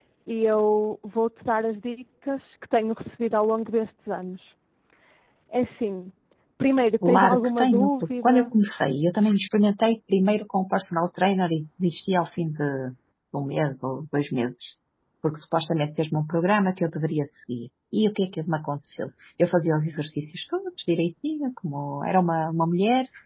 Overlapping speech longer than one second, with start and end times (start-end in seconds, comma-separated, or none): 7.0-8.5